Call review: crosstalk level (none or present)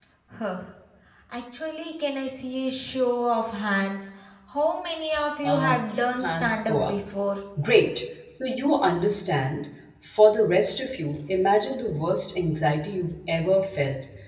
present